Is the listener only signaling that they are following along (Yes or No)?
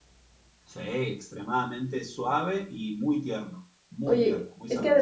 No